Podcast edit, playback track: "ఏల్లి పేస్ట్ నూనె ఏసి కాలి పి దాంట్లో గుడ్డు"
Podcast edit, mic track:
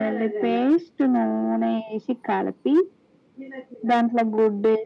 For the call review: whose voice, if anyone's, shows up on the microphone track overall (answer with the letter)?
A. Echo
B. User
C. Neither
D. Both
A